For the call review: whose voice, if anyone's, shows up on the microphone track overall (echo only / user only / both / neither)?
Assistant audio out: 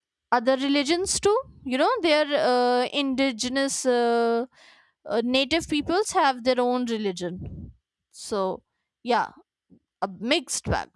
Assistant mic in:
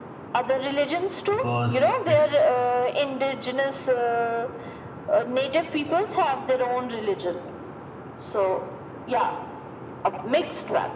both